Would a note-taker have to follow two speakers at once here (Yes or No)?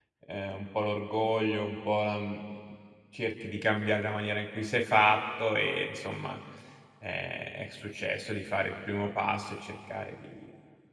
No